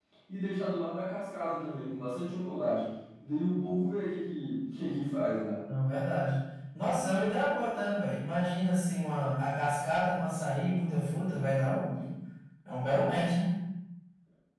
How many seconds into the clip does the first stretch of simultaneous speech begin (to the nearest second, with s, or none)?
none